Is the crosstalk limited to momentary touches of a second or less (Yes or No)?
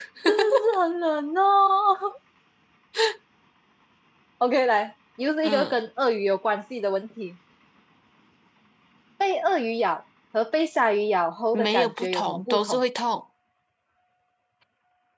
No